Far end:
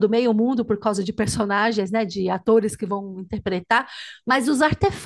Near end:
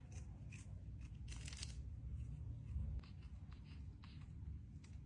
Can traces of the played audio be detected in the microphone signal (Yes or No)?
No